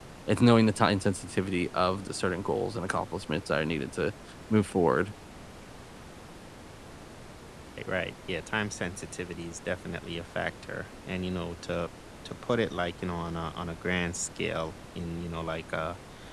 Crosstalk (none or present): none